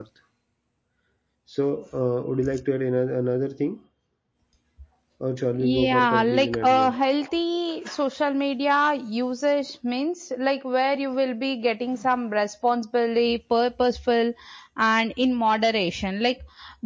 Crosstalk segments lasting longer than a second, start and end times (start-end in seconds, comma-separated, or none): 5.6-7.0